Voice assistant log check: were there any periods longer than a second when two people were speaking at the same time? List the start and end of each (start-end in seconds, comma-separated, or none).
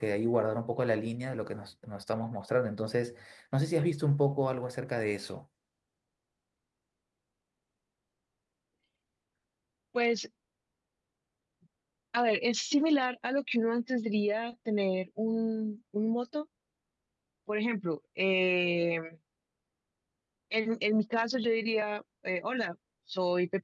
none